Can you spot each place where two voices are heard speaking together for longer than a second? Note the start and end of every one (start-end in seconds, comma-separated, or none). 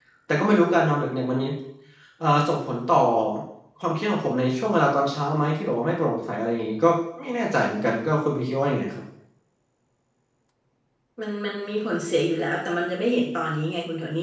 none